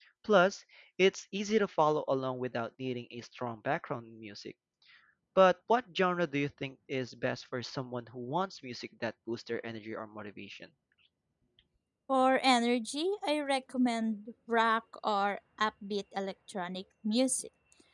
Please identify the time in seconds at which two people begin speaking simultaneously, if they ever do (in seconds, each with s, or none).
none